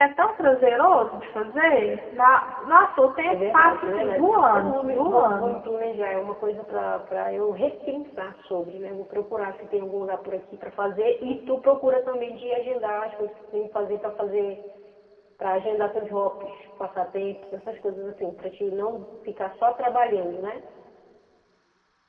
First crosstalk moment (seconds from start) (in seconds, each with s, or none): 3.3 s